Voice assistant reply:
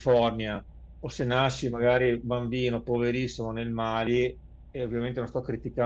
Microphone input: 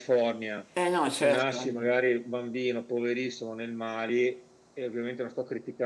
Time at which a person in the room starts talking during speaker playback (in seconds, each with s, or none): 0.8 s